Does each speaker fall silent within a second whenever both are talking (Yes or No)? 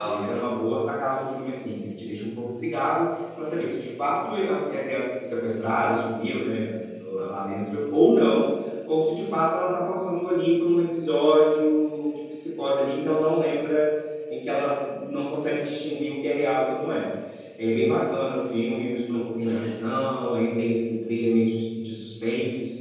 Yes